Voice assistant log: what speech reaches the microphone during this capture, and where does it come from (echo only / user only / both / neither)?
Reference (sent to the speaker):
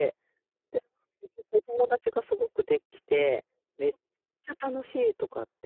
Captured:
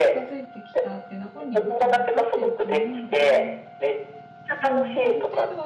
both